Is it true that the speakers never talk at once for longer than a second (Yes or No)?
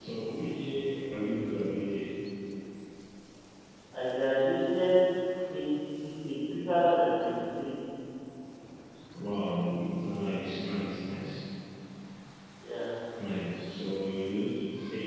Yes